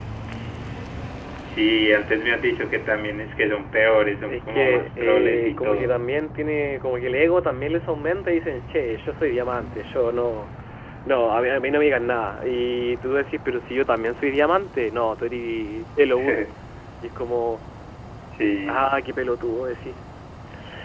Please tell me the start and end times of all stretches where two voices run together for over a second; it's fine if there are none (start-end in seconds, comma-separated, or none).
4.2-6.0